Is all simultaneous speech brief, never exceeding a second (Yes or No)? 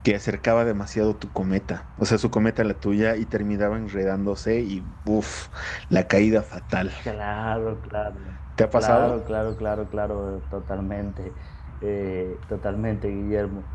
Yes